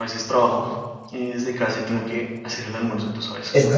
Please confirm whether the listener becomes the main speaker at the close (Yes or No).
Yes